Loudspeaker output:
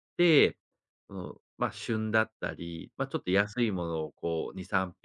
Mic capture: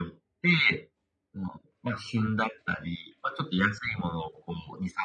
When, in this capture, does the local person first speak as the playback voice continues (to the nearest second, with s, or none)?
none